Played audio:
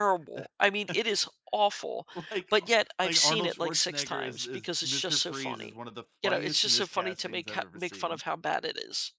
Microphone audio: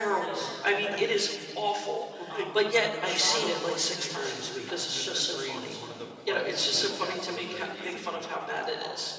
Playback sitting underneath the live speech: No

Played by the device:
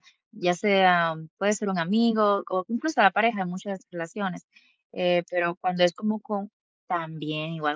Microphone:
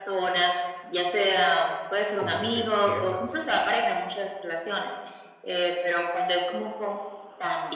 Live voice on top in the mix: No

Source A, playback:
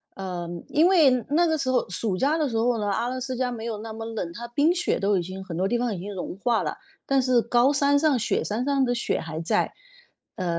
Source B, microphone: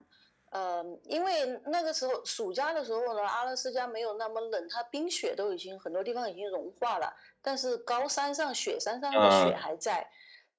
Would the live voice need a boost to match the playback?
No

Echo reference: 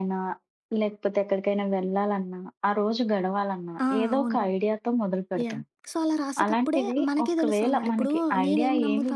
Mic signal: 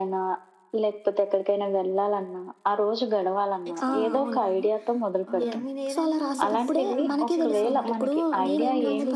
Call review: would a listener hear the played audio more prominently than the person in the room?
Yes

